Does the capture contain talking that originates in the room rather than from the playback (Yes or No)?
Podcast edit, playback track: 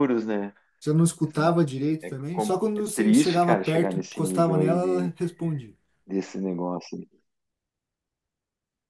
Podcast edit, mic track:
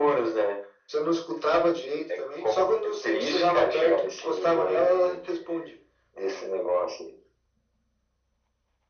No